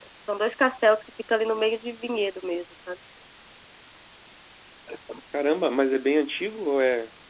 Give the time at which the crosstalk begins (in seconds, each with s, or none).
none